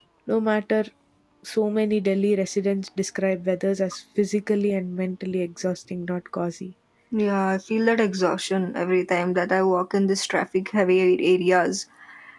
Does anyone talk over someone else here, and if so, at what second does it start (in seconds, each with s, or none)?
none